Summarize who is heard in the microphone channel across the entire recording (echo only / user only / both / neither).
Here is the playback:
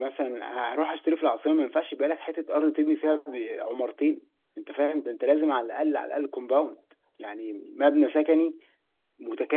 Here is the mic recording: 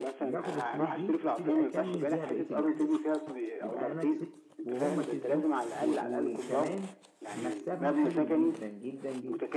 both